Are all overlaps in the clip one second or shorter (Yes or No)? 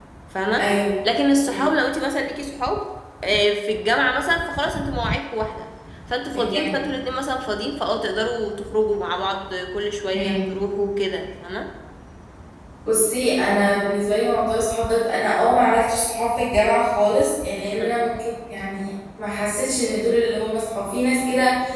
Yes